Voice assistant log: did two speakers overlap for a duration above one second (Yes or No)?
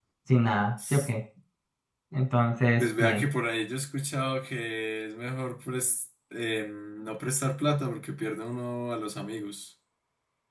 No